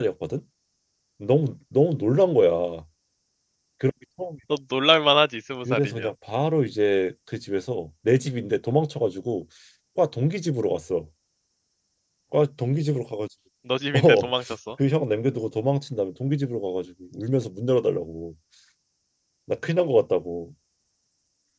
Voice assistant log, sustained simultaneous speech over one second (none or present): none